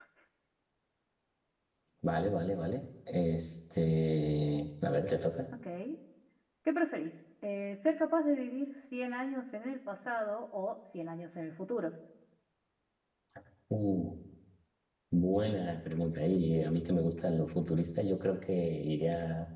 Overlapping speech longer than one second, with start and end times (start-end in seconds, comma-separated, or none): none